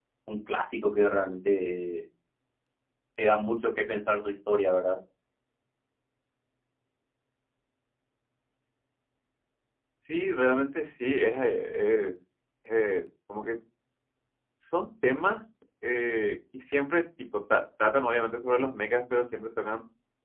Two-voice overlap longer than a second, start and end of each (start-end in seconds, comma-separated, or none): none